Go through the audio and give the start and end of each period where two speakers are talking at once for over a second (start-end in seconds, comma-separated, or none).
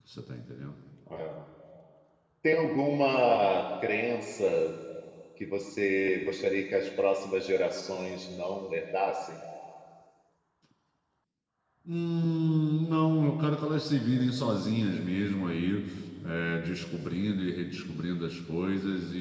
none